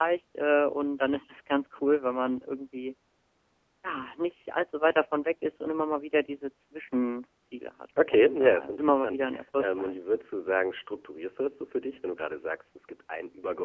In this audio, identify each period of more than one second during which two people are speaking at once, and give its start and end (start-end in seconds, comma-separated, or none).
8.1-10.0